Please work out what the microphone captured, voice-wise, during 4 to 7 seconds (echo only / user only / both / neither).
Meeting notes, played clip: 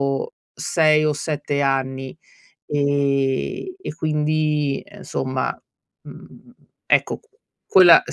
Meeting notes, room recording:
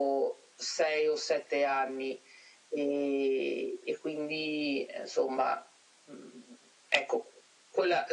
echo only